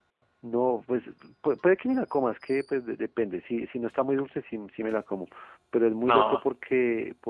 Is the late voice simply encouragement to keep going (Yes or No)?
Yes